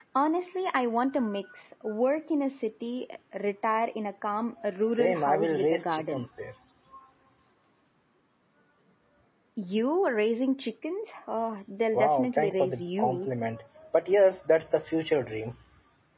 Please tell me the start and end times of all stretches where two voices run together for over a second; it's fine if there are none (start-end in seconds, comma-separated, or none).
4.9-6.2, 11.9-13.3